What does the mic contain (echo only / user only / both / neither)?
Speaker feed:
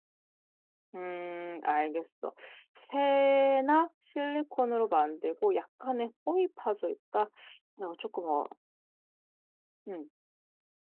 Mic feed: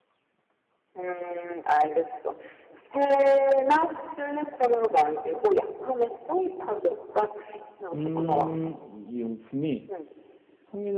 both